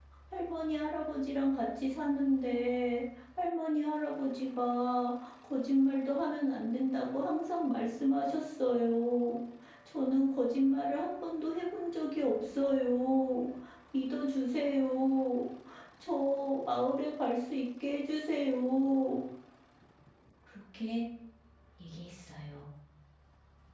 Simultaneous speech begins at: none

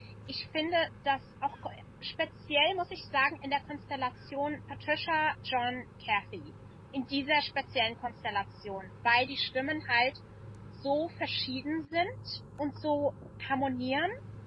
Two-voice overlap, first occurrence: none

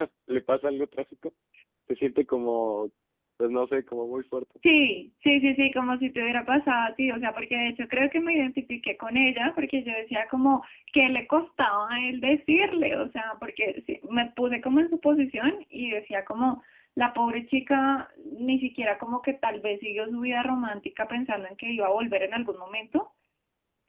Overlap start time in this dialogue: none

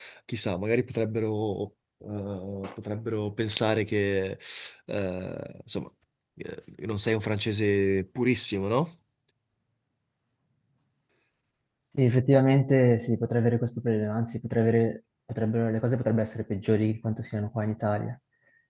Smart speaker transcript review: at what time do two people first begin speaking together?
none

